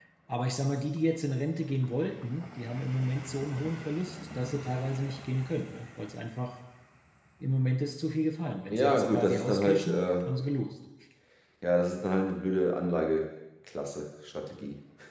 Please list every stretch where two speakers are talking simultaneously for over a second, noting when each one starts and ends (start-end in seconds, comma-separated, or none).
8.7-10.0